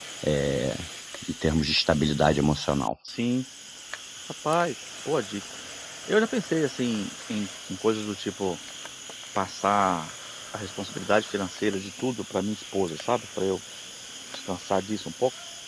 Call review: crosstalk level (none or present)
none